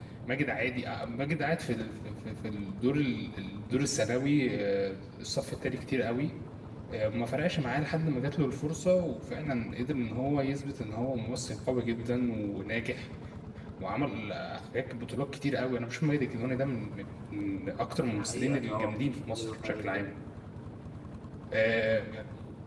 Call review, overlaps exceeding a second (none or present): present